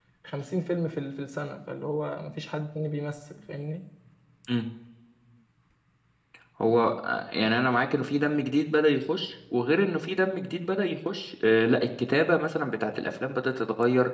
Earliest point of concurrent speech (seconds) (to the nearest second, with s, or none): none